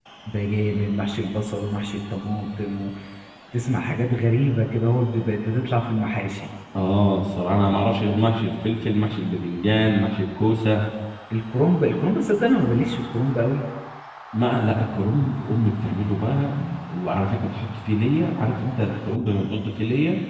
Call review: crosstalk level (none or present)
none